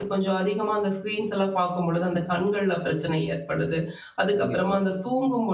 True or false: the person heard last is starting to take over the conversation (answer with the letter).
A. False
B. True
A